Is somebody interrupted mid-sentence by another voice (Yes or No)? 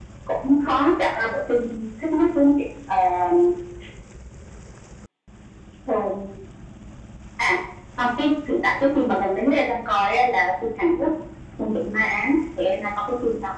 No